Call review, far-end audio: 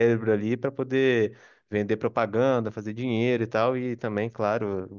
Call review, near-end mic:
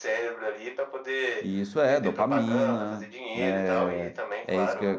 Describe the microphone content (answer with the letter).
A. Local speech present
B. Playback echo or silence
A